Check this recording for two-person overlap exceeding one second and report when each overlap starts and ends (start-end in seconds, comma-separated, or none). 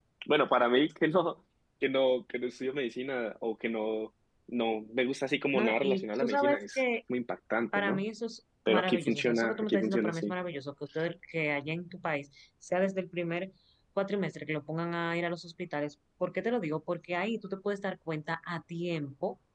5.5-6.8, 8.7-10.3